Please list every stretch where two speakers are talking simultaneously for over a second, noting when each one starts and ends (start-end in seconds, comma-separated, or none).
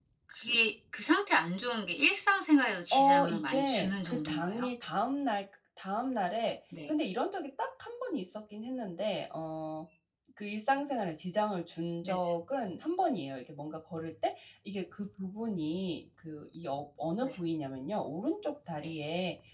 2.9-4.7